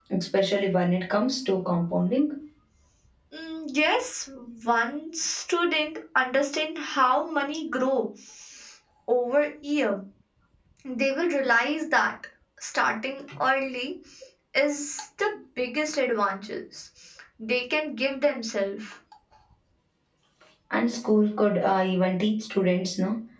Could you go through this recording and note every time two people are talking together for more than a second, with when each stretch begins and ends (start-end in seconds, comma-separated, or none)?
none